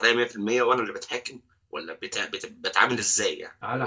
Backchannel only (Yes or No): No